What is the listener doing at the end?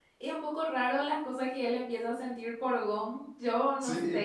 listening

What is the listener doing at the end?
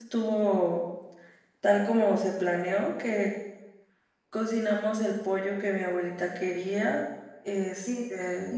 taking over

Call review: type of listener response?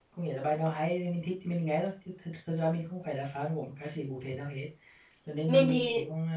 listening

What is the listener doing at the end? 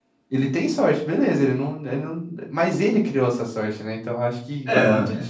listening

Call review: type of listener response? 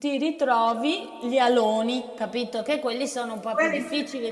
taking over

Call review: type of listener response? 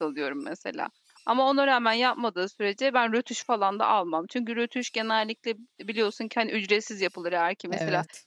listening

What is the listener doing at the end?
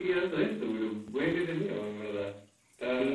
taking over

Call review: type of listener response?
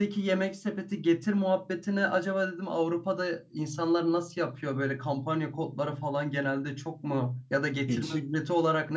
listening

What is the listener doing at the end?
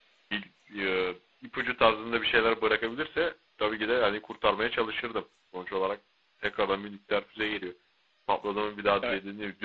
listening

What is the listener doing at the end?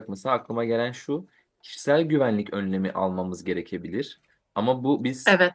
listening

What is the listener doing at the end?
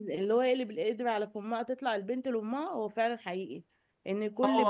listening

